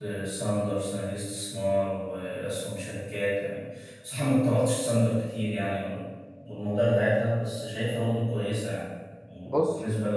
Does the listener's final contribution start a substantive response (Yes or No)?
No